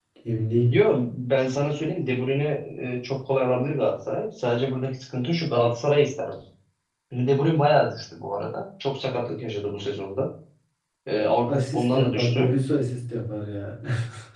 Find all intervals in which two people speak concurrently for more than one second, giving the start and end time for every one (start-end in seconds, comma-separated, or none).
11.1-12.5